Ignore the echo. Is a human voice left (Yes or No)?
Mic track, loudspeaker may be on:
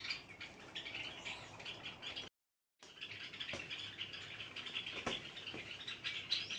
No